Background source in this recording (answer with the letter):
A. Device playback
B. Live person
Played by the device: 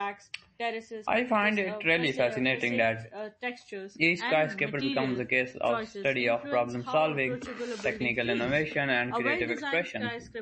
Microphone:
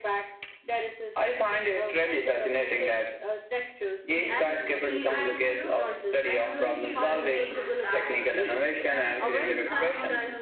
B